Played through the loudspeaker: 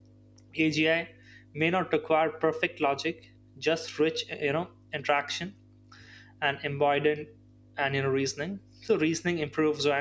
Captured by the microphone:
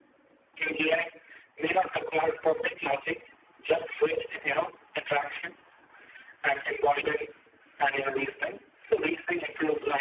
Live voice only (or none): none